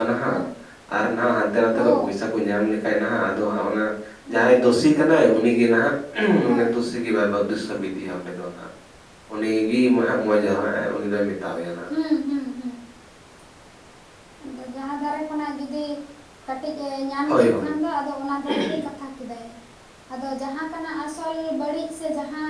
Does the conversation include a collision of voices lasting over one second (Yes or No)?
Yes